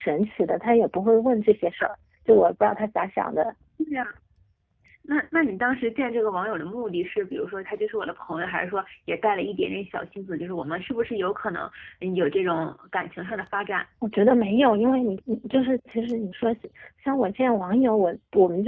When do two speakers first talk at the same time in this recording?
none

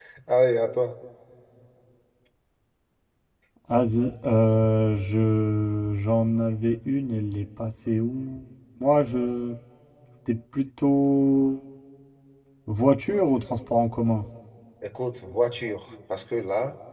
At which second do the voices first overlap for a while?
none

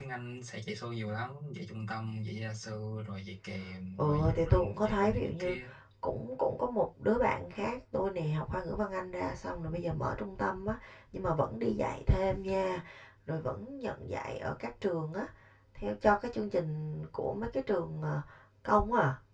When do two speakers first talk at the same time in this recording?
4.0 s

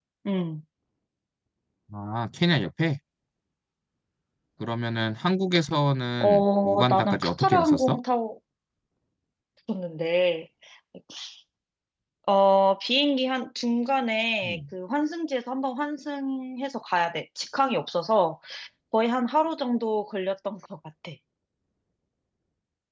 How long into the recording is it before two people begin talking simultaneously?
6.2 s

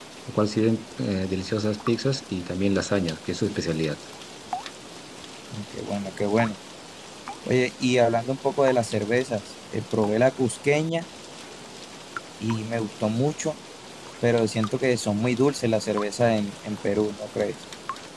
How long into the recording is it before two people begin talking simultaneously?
none

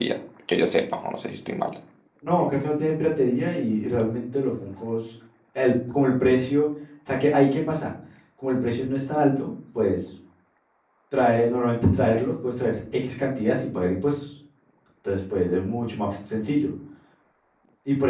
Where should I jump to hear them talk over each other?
none

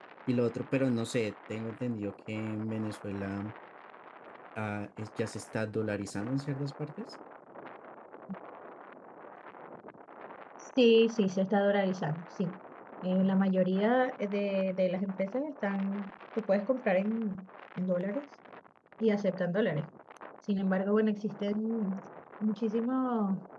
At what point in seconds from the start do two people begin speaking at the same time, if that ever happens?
none

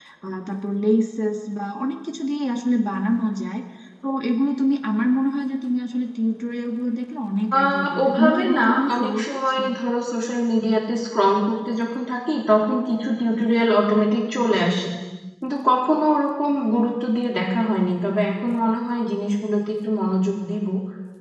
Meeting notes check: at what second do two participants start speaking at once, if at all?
7.5 s

